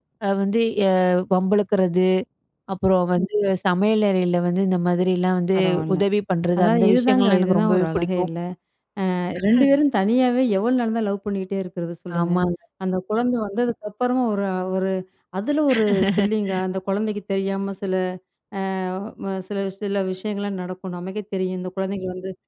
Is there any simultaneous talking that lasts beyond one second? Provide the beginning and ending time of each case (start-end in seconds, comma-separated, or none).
6.6-8.3